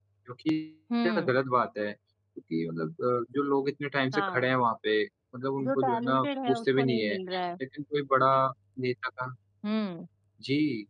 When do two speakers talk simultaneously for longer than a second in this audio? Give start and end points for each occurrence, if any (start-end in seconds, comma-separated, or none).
5.6-7.2